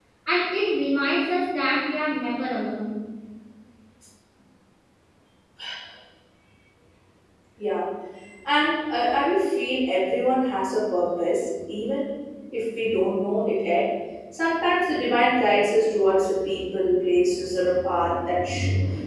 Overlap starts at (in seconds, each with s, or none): none